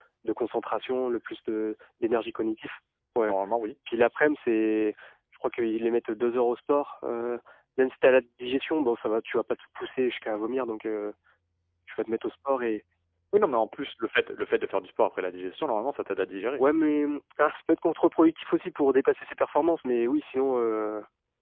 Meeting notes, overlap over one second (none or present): none